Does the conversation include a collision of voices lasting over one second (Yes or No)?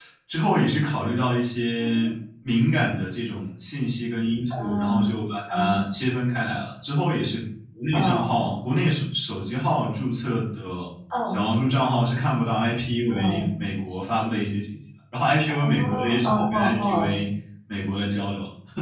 Yes